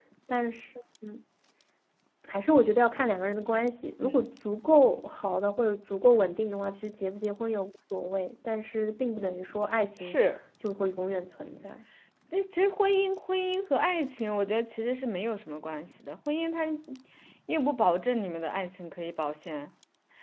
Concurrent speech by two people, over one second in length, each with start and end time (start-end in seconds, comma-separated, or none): none